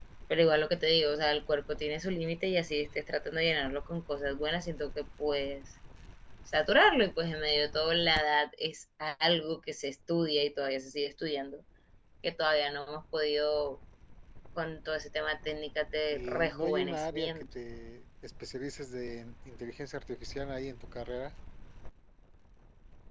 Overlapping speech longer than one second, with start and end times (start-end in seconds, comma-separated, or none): 16.1-17.4